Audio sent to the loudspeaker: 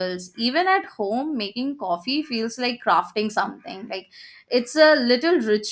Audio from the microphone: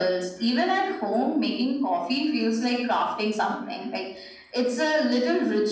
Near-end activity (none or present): none